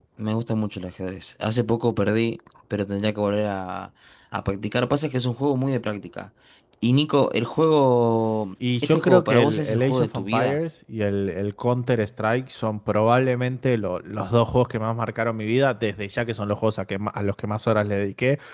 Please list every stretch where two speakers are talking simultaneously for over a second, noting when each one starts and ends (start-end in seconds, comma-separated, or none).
8.8-10.6